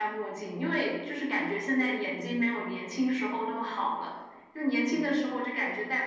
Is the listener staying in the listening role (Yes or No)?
Yes